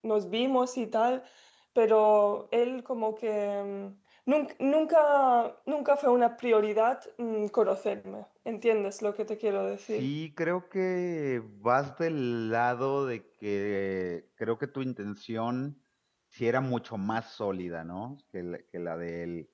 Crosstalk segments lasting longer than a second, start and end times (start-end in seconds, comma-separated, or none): none